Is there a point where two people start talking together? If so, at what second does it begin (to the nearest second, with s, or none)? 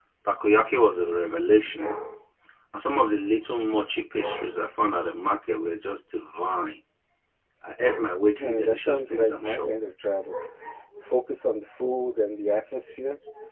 8 s